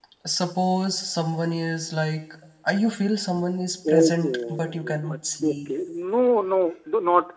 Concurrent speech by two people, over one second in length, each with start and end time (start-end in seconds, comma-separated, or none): 3.9-5.7